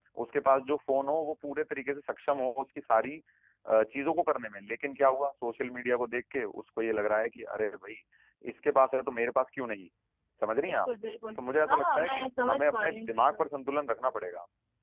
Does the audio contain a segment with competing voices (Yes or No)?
Yes